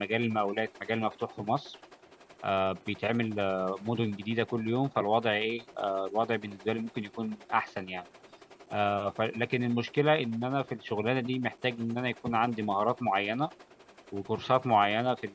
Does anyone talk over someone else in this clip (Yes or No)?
No